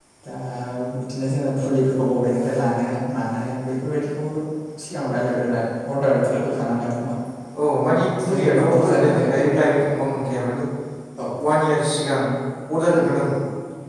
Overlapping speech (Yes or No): Yes